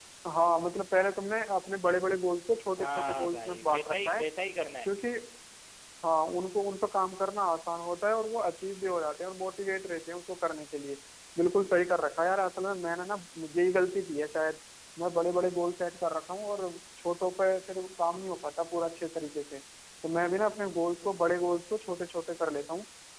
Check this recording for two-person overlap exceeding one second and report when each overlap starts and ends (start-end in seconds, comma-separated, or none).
2.8-4.2